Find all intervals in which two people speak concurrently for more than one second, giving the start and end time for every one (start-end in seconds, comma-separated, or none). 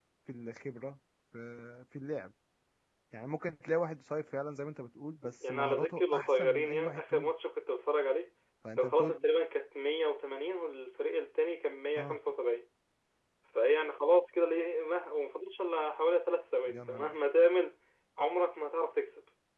5.4-7.3